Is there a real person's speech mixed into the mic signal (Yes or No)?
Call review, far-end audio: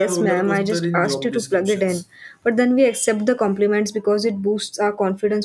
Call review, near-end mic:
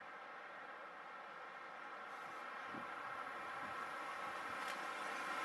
No